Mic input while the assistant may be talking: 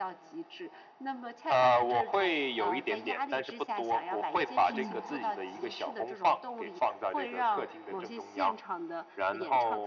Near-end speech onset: 4.7 s

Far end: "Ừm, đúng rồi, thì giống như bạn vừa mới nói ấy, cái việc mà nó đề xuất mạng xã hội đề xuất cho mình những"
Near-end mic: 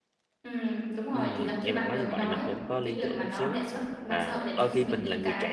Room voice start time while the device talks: 1.1 s

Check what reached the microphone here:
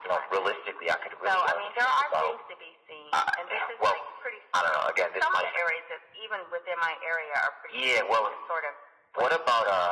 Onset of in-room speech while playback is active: none

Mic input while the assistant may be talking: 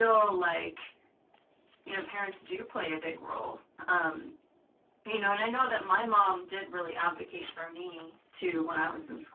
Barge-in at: none

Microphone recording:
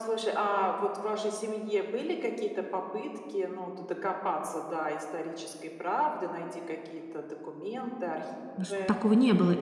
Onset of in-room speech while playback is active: 8.6 s

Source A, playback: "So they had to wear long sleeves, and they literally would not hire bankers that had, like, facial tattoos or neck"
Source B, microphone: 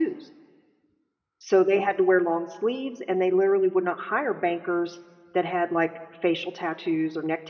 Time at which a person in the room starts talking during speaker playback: none

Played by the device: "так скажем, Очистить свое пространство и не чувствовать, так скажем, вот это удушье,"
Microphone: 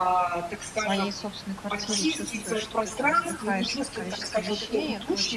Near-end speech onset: 0.7 s

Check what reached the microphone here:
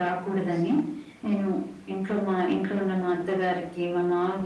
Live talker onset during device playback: none

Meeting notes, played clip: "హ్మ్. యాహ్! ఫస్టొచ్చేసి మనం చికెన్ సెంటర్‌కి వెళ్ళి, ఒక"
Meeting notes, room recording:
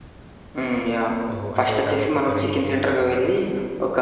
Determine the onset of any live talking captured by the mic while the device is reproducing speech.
1.3 s

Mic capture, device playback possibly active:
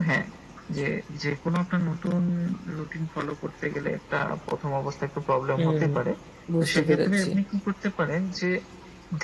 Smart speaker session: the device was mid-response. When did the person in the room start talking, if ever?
5.6 s

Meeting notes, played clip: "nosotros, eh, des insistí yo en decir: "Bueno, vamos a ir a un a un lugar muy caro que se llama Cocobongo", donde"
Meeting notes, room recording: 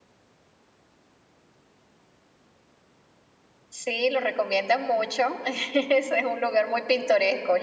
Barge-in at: 3.7 s

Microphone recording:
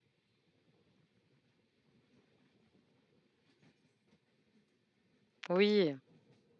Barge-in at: 5.5 s

